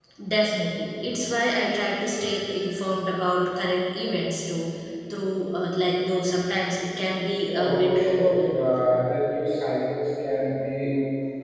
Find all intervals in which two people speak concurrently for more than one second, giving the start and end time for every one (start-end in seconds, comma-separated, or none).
7.5-8.7